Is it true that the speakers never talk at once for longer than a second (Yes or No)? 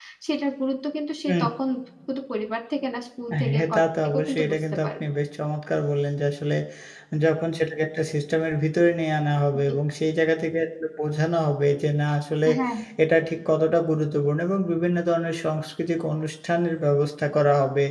No